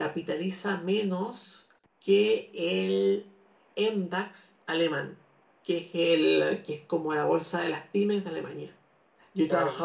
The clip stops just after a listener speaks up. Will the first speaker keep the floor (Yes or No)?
Yes